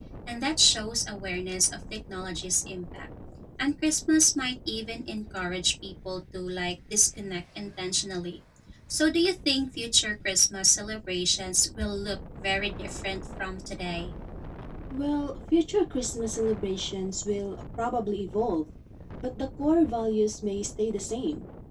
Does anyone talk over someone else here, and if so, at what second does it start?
none

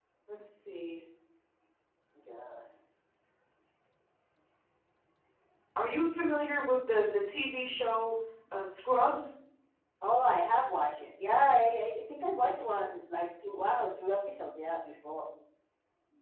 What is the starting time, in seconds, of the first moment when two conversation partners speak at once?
none

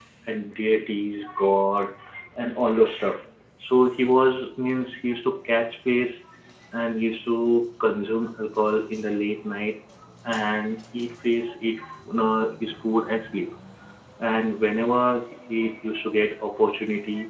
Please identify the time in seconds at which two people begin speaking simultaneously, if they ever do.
none

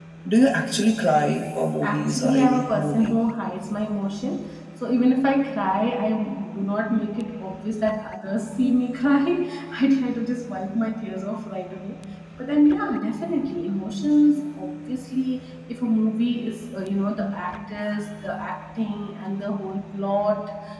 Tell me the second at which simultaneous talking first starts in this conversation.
1.0 s

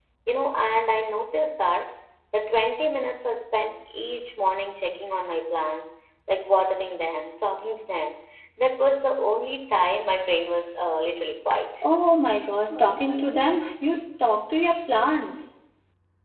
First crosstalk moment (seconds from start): none

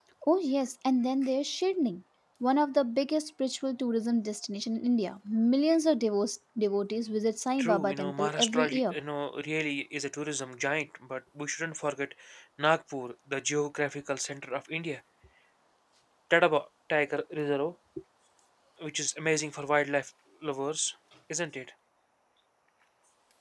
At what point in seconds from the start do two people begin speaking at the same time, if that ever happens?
7.6 s

